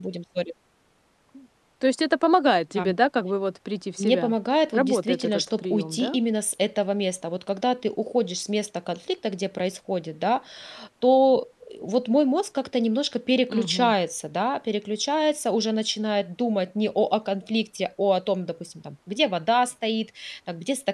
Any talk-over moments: Yes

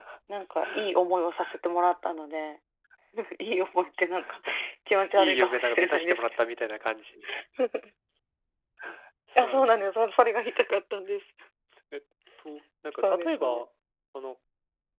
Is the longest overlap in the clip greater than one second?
Yes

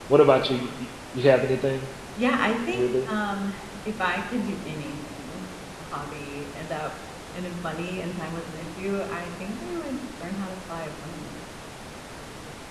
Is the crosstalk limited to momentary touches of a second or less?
Yes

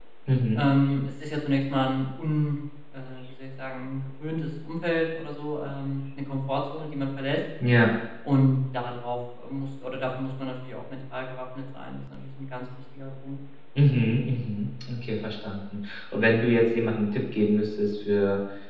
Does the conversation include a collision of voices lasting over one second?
No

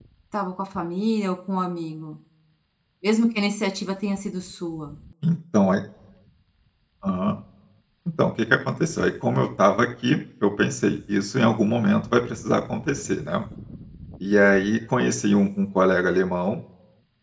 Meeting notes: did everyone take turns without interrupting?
Yes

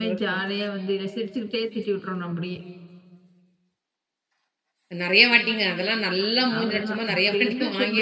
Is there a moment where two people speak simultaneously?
Yes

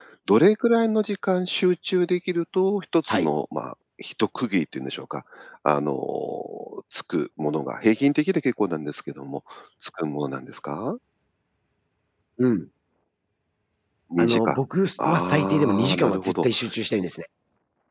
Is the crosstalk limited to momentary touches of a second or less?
No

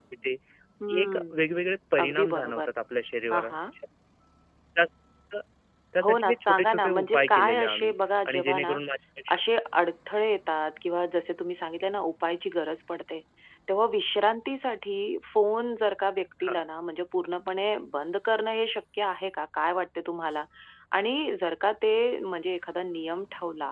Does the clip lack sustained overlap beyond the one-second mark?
No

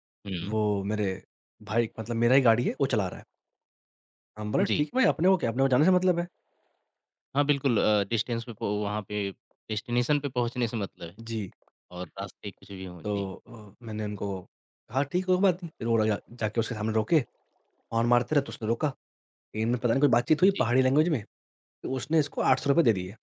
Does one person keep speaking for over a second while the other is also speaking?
No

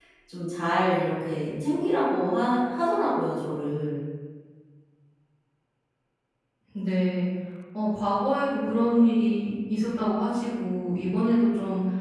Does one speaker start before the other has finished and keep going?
No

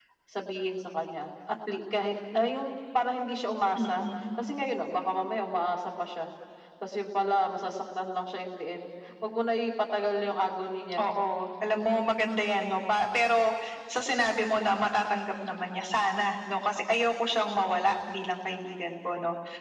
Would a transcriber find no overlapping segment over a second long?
Yes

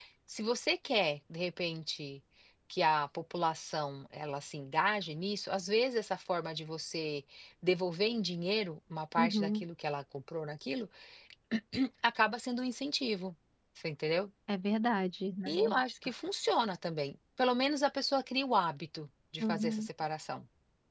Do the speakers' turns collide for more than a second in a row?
No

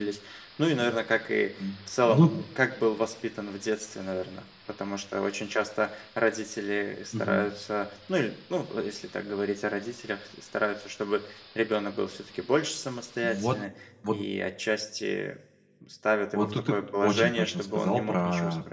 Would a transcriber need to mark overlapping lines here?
Yes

